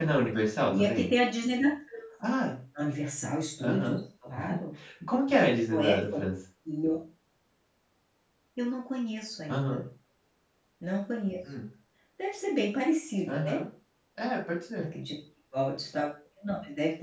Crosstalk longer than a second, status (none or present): none